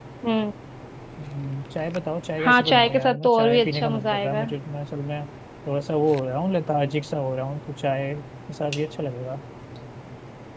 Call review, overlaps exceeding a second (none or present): present